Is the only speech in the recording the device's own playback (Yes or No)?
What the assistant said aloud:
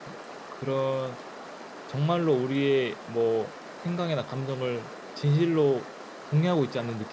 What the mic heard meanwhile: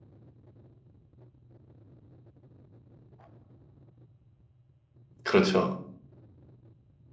No